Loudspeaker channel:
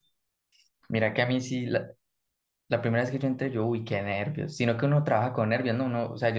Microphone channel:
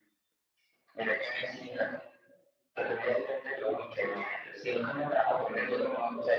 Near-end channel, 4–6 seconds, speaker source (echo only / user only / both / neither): echo only